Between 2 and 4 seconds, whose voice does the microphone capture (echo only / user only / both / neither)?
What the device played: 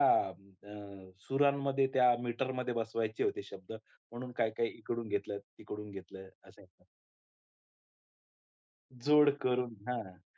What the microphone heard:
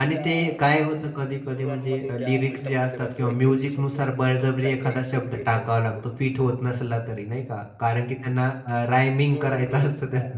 both